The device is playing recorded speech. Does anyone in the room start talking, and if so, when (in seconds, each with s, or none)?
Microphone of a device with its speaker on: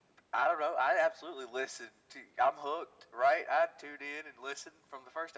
none